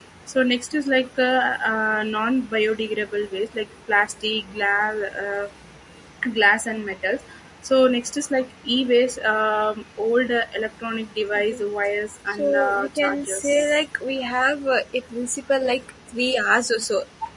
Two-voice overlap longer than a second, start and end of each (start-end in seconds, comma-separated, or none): 12.4-13.8